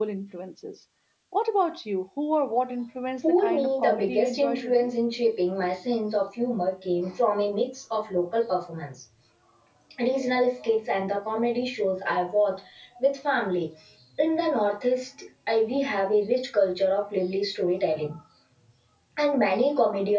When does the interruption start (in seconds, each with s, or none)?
3.2 s